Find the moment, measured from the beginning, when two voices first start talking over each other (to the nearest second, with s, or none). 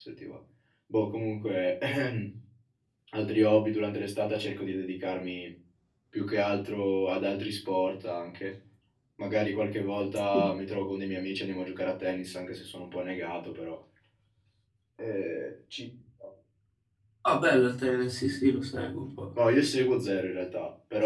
none